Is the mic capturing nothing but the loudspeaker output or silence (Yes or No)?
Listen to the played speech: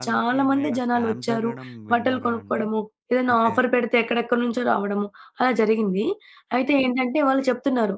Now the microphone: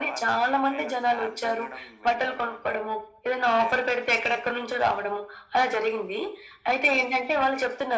Yes